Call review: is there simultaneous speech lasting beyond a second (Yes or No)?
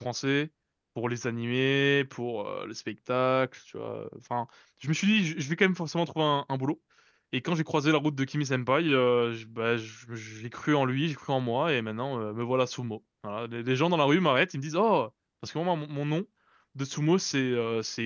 No